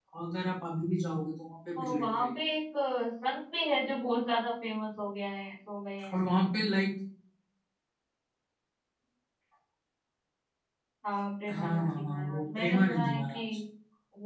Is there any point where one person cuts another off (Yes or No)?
Yes